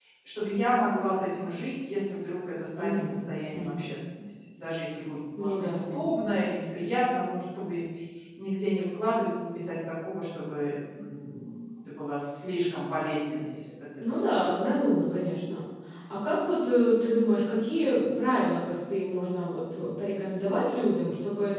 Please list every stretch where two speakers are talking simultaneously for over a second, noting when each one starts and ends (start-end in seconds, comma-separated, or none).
none